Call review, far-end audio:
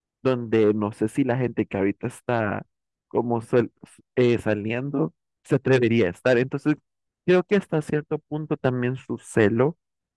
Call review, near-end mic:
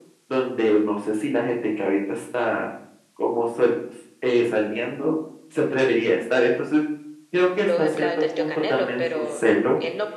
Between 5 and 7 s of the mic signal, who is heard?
echo only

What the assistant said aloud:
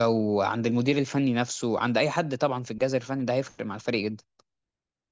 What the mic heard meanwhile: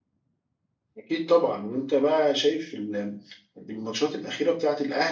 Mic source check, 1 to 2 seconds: user only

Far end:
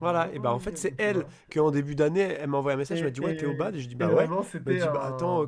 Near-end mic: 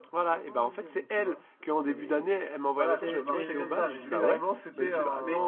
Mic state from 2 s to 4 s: both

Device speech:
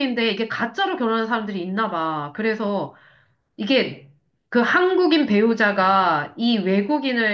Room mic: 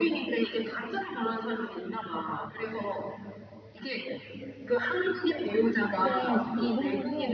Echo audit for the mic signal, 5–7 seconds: both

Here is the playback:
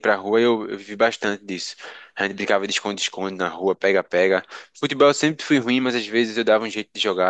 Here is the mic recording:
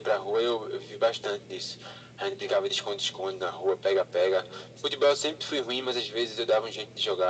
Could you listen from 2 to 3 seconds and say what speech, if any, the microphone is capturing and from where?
echo only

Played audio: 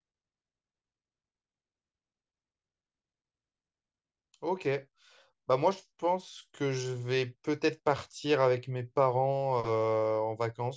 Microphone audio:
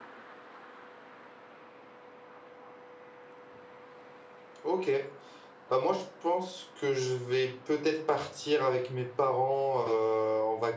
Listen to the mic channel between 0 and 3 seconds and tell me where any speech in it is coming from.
neither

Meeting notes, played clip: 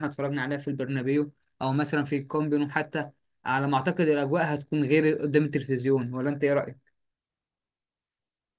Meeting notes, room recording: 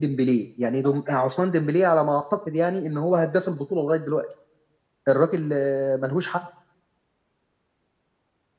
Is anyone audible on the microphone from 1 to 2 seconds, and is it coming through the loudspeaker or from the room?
user only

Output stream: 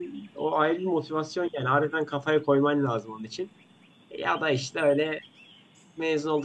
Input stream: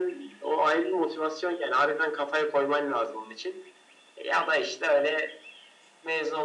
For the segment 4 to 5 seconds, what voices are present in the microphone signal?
echo only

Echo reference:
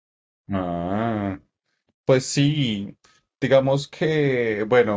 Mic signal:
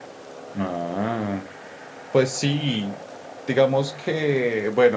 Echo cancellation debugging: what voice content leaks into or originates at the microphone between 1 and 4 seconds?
echo only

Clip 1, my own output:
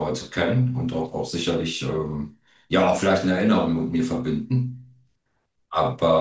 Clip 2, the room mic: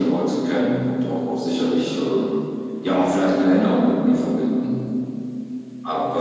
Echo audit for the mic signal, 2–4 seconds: echo only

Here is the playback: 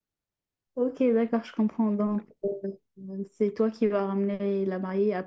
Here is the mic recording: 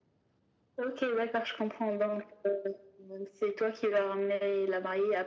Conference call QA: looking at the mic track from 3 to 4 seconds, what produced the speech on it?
echo only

